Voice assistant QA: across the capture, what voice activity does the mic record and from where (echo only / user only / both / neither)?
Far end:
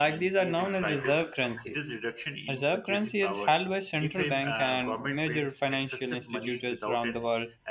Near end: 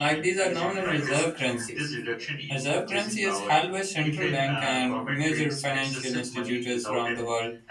echo only